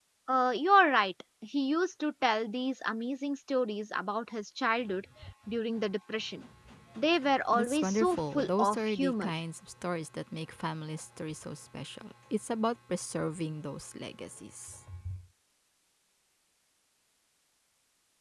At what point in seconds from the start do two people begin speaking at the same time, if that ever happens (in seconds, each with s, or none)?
7.5 s